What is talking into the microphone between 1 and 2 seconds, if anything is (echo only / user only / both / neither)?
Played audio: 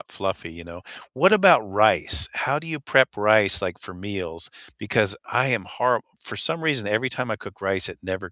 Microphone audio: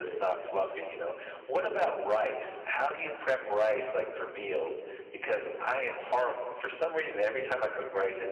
echo only